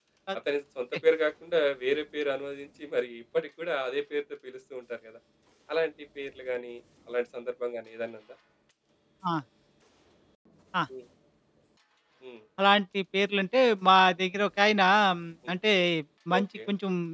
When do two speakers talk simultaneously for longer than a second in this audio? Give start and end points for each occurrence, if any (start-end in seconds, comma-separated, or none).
none